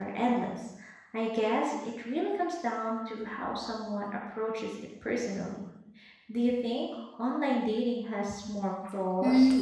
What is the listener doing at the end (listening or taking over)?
taking over